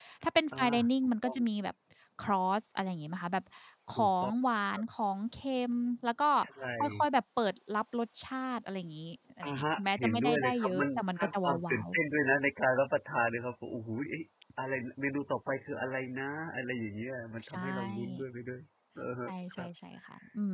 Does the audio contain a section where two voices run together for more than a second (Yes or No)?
Yes